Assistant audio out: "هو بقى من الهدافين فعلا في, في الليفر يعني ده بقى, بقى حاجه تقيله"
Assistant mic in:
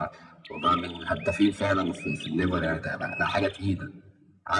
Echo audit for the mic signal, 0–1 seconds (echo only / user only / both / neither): echo only